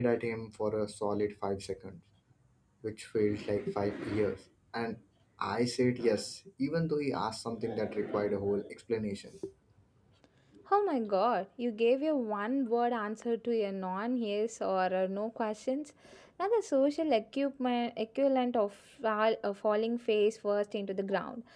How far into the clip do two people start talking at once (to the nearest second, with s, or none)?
none